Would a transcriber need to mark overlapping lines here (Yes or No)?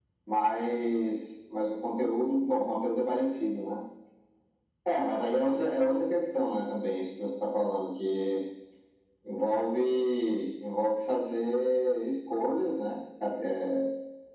No